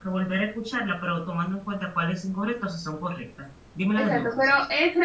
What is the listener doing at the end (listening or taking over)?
taking over